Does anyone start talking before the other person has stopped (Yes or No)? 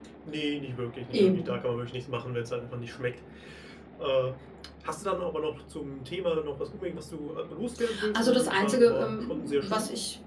Yes